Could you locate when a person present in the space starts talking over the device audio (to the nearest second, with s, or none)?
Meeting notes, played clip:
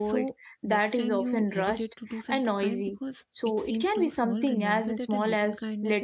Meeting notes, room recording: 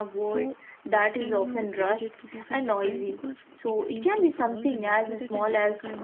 none